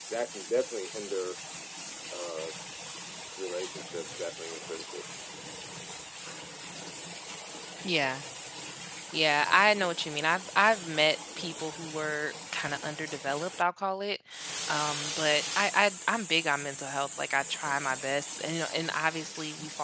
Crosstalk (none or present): none